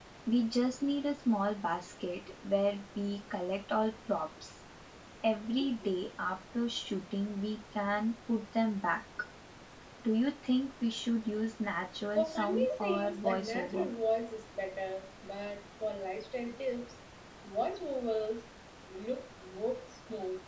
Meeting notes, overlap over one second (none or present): present